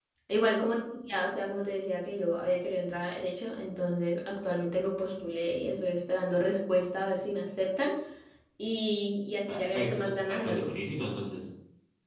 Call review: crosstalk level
present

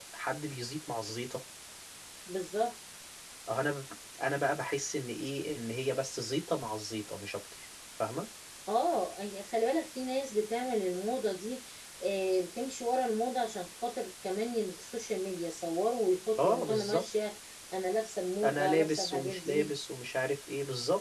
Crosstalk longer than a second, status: present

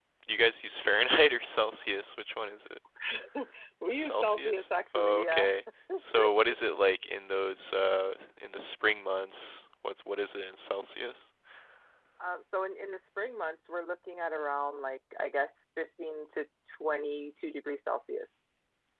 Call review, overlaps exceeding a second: present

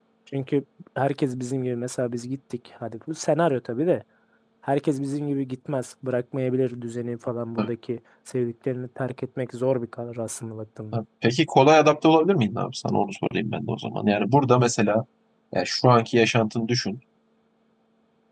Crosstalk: none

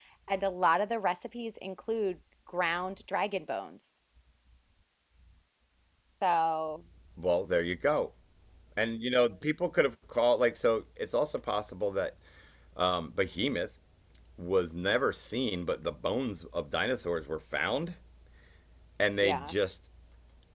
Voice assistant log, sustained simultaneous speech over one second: none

